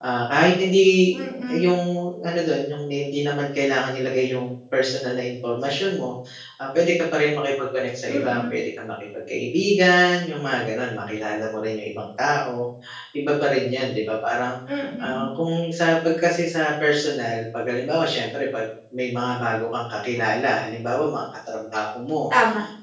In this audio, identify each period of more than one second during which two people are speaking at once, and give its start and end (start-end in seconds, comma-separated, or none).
none